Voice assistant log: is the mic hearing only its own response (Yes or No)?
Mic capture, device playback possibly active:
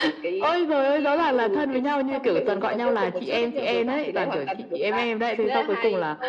No